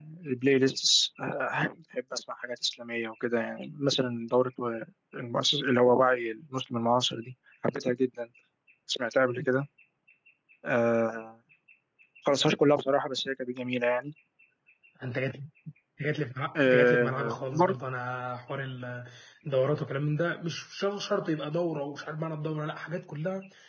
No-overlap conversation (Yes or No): No